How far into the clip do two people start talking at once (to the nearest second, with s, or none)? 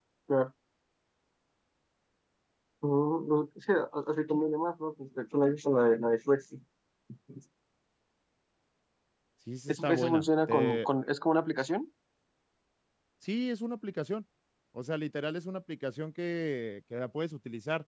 10 s